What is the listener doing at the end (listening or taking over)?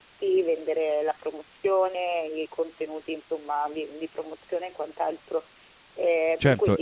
taking over